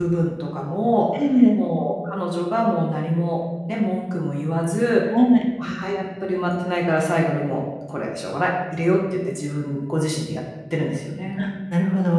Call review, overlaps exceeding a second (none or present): none